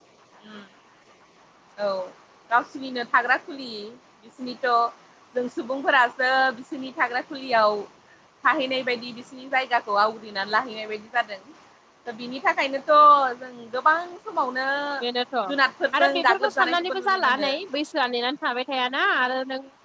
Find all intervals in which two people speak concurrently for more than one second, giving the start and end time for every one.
16.0-17.5

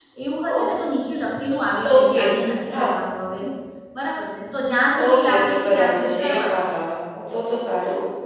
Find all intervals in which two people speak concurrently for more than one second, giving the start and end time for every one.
5.0-6.8

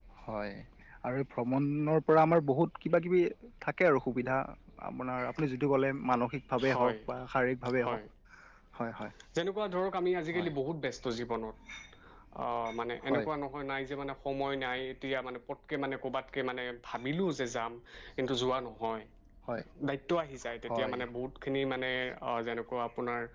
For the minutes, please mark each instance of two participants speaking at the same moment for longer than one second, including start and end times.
none

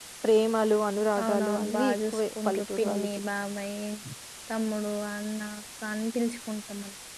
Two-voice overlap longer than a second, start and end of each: 1.2-3.1

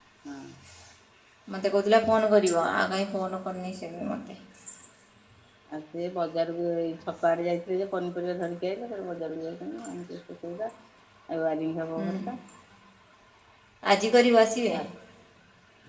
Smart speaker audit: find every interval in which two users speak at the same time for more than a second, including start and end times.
none

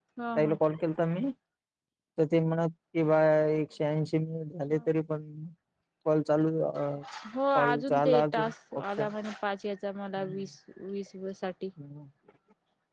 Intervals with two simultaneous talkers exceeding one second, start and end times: 7.5-9.0

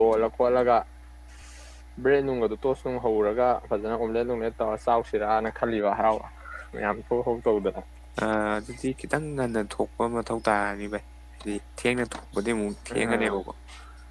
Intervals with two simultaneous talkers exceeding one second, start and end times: none

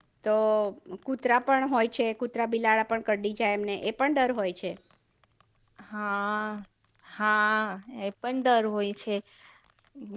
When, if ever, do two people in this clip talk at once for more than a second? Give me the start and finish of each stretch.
none

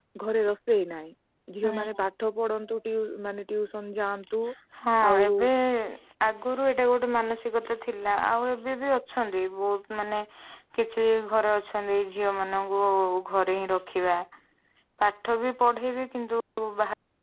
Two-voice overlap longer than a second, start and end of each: none

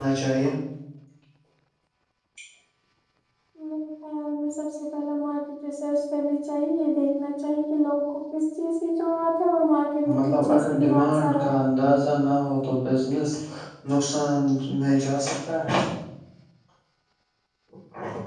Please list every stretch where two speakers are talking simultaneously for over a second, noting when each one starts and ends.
10.1-11.6

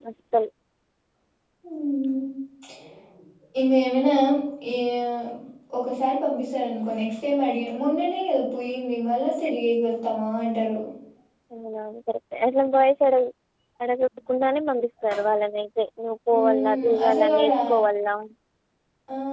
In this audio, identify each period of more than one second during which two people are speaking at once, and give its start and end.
16.3-17.5

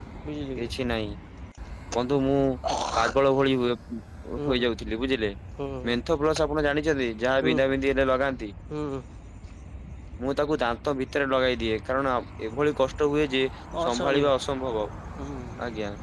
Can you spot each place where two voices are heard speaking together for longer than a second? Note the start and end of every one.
none

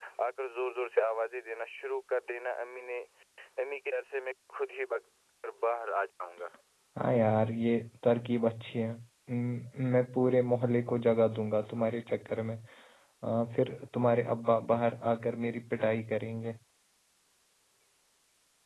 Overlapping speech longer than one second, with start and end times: none

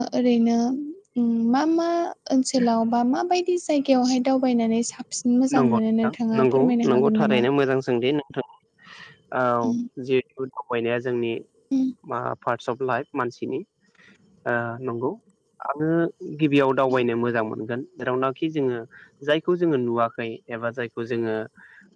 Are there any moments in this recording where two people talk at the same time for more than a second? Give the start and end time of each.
5.6-7.3

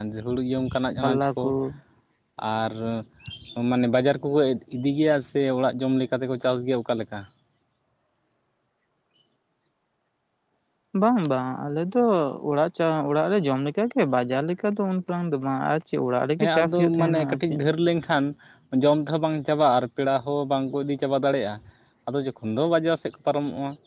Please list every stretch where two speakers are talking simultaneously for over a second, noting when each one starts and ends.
16.4-17.6

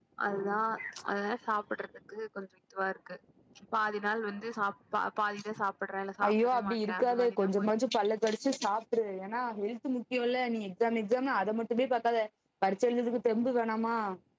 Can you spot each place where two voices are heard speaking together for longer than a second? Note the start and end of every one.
6.3-7.7

